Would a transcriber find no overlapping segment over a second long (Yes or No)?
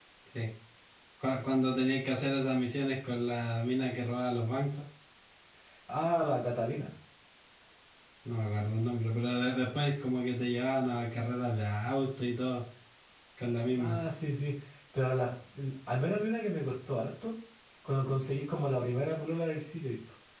Yes